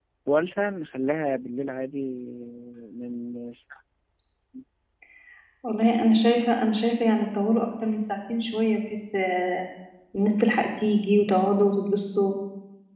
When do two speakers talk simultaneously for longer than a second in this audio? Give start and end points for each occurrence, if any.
none

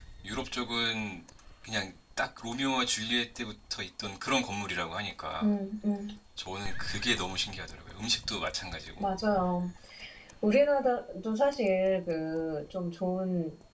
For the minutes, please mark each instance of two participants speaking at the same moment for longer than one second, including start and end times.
none

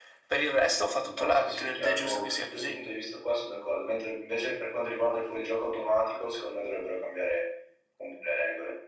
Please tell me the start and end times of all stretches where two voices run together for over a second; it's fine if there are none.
1.1-2.8

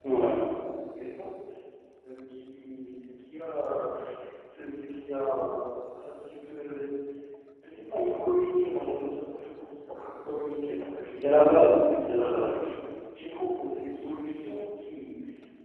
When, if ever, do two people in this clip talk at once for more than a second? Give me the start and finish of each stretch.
11.1-12.6

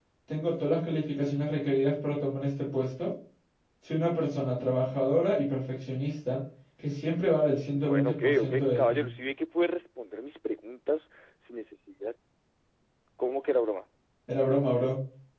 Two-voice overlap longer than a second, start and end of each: 7.7-9.1

